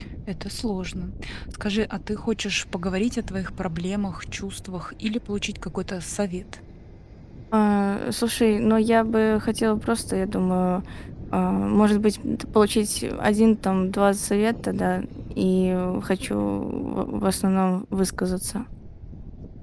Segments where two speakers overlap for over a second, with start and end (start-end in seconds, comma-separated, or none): none